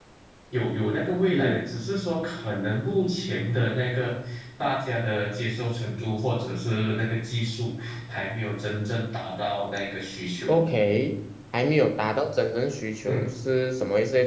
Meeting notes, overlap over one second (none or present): none